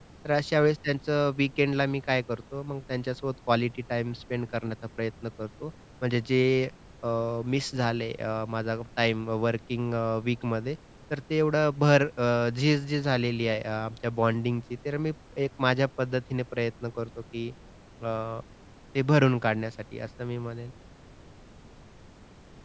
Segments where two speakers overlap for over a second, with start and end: none

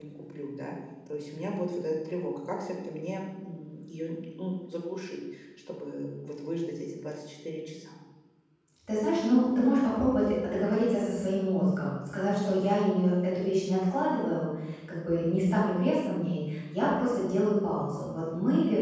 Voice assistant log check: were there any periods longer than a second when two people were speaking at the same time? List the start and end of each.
none

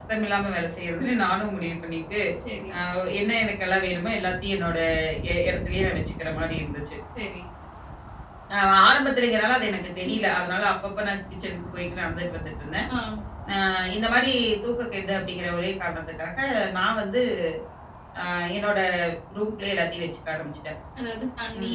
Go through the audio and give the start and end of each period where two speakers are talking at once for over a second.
none

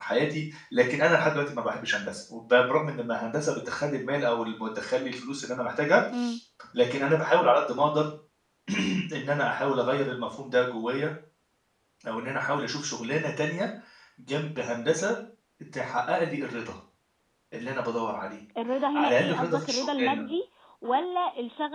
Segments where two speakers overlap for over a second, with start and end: 18.9-20.2

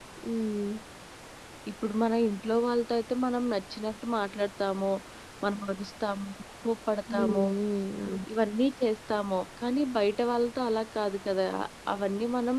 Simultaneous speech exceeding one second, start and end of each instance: none

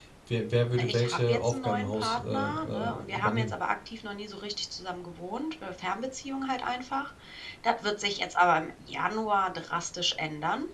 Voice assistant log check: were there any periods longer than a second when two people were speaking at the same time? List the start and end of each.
0.7-3.5

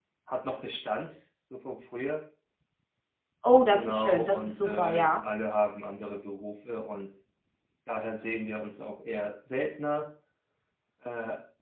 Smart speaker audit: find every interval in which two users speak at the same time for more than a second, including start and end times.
3.7-5.2

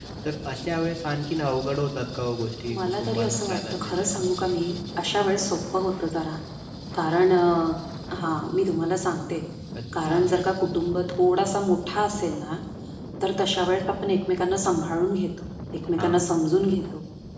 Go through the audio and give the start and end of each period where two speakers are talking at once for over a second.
2.8-4.2

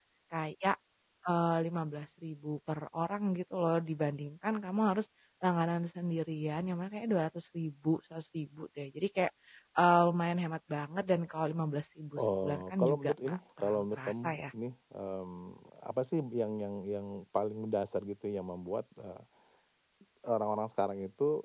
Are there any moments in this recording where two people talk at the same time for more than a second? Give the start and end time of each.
12.2-14.4

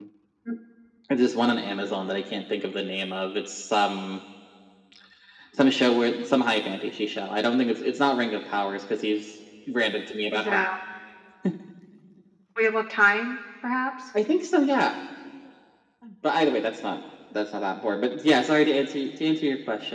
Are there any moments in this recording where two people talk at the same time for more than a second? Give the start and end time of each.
none

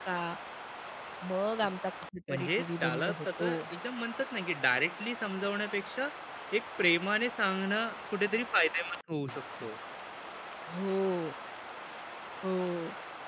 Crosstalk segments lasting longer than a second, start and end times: 2.3-3.5

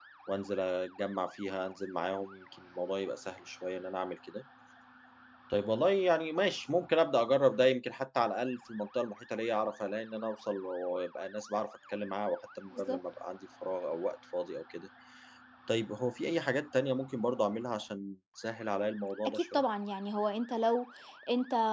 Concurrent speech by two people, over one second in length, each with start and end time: none

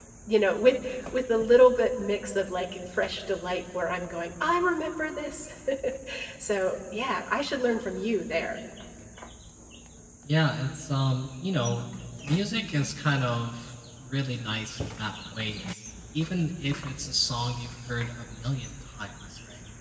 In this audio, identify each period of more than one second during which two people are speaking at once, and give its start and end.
none

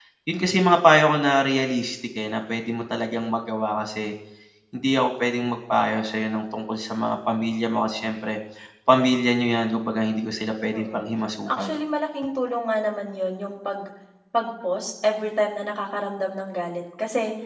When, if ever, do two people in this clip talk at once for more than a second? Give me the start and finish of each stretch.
none

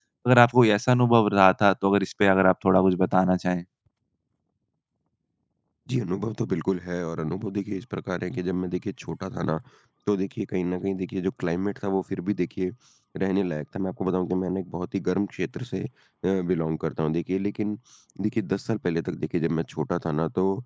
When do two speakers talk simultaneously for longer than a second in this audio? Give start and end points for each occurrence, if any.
none

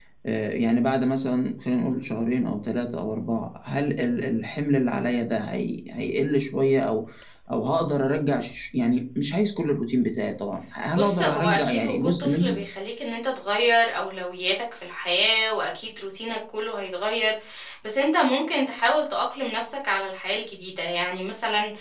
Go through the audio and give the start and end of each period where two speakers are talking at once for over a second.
10.9-12.6

